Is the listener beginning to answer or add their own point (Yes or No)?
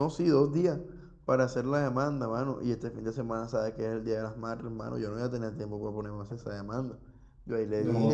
No